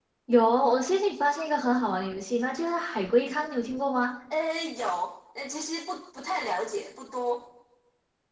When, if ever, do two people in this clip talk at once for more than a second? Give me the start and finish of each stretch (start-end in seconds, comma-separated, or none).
none